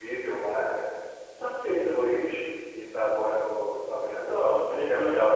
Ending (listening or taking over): taking over